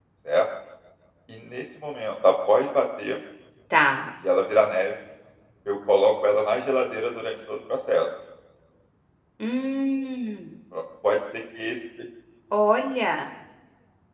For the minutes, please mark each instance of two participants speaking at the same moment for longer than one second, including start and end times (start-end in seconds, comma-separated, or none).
none